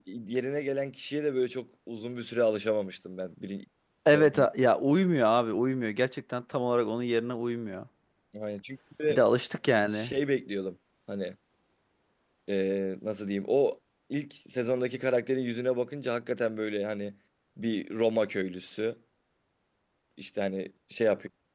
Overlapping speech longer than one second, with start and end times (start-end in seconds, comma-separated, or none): none